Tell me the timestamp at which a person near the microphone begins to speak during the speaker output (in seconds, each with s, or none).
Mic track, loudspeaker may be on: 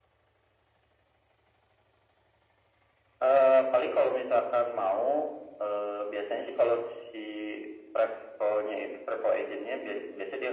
none